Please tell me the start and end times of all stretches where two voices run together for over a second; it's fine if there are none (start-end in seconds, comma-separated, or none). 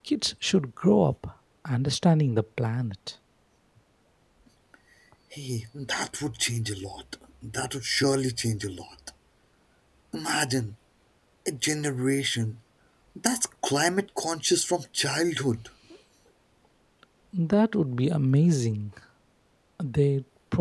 none